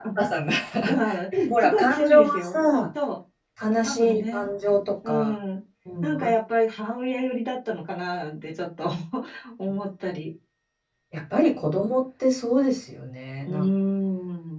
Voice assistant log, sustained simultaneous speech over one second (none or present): present